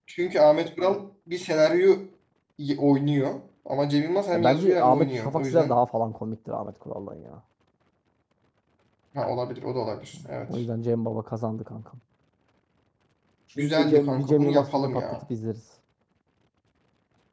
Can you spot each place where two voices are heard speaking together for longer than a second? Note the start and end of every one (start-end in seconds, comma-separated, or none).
4.3-5.7, 13.6-15.0